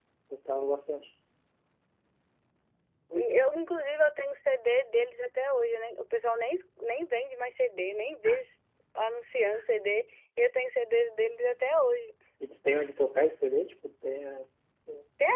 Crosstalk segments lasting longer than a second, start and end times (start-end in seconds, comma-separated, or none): none